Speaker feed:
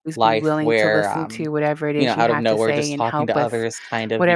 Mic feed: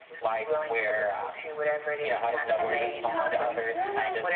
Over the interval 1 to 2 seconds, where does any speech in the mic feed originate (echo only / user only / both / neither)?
echo only